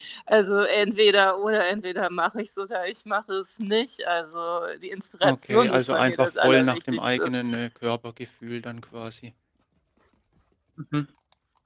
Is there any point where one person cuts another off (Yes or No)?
Yes